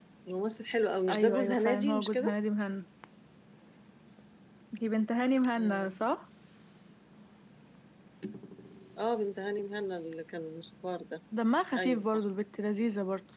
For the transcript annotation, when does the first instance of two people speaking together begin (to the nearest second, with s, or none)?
1 s